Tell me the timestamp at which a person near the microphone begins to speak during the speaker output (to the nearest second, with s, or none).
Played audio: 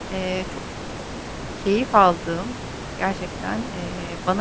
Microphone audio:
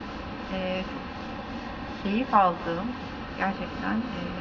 none